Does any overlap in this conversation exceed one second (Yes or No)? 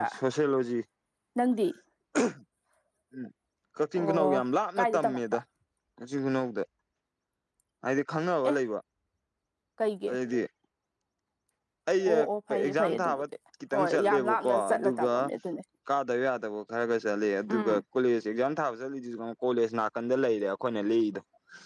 Yes